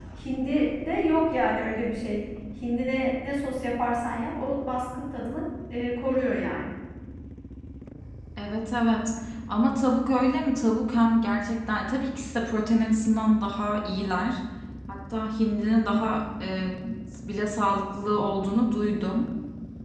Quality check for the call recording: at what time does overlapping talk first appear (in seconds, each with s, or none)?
none